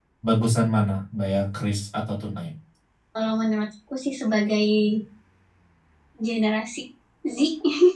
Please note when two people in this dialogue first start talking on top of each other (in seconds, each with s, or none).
none